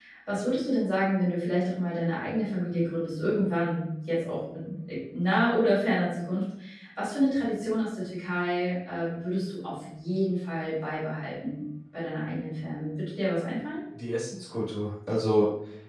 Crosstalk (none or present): none